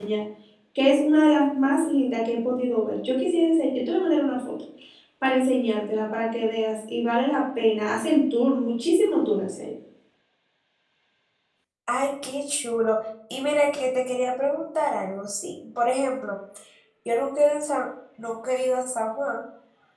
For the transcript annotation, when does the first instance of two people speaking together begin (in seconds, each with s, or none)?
none